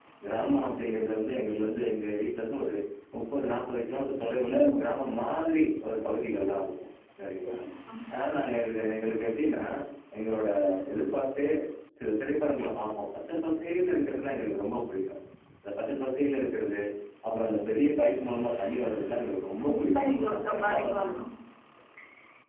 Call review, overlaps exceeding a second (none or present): present